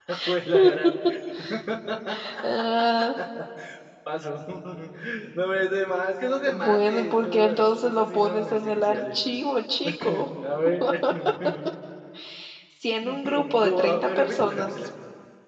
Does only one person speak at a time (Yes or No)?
No